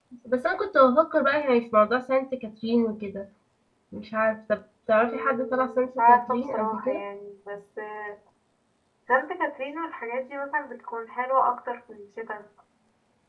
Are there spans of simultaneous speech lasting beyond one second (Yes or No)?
Yes